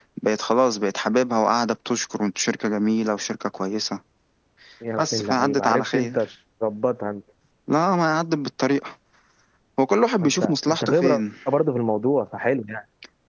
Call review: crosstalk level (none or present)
present